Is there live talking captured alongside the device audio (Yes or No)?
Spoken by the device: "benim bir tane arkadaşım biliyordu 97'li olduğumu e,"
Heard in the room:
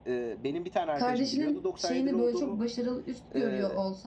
Yes